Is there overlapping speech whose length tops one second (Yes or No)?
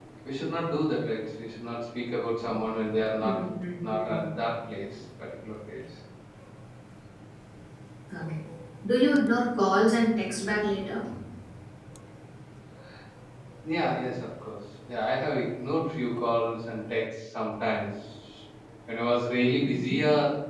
No